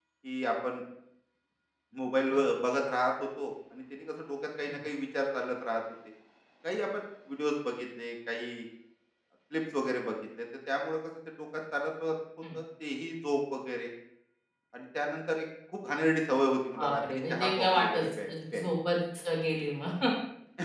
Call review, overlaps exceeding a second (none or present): present